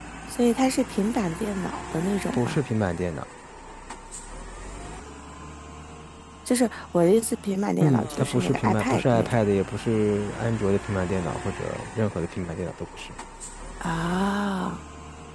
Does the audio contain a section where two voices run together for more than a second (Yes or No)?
Yes